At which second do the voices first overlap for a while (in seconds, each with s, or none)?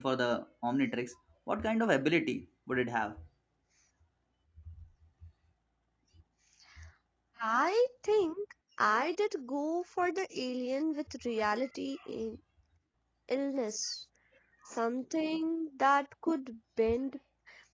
none